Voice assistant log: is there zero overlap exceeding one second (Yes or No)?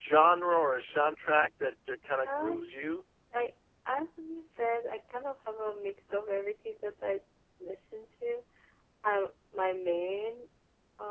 Yes